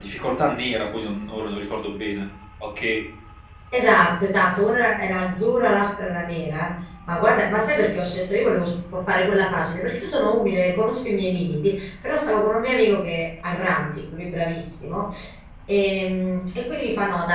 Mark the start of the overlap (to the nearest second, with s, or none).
none